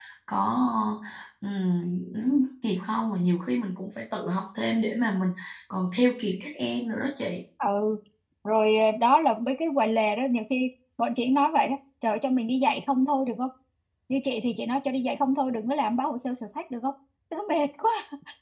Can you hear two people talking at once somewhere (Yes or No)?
No